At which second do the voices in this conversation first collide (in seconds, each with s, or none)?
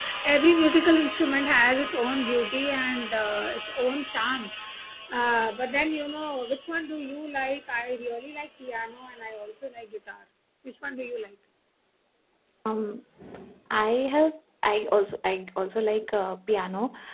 none